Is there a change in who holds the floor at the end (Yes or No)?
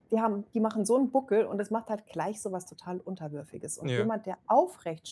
No